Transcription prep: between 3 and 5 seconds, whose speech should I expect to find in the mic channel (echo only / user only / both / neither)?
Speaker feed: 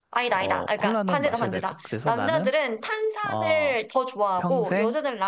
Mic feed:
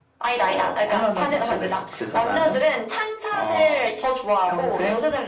echo only